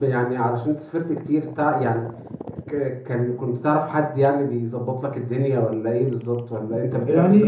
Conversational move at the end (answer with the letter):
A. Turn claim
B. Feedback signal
A